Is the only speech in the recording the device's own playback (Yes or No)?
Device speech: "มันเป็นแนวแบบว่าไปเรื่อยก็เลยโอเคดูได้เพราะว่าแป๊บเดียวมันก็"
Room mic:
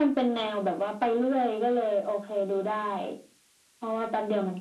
Yes